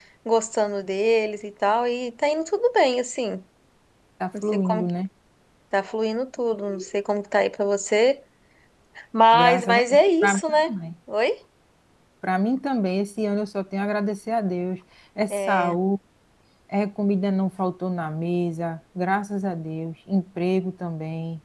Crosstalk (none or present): present